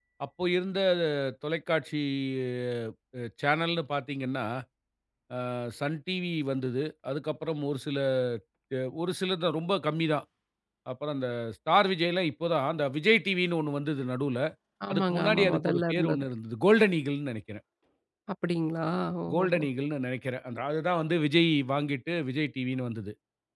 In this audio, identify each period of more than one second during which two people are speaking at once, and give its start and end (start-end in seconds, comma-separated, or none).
14.9-16.3